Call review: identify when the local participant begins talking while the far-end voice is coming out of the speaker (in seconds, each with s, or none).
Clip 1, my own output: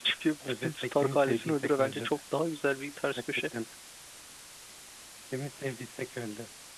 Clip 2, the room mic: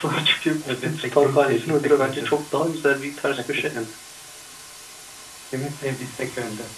none